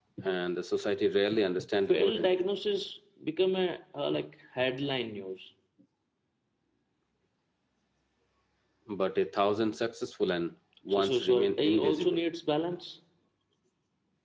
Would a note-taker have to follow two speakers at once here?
Yes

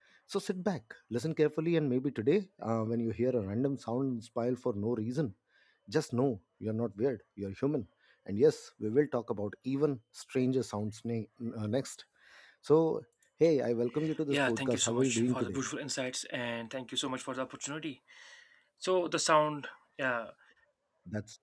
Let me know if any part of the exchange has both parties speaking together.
Yes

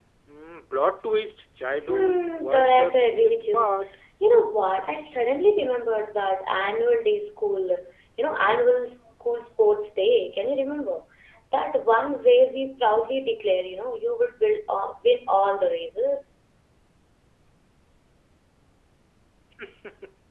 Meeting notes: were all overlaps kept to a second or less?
No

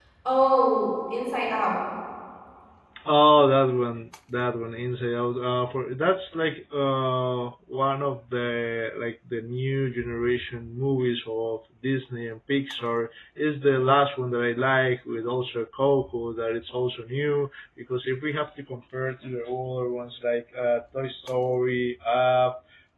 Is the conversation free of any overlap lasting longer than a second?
Yes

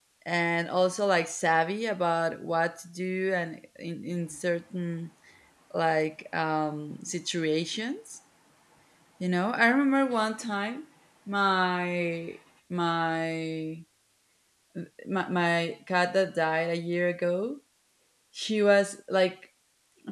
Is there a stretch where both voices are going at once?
No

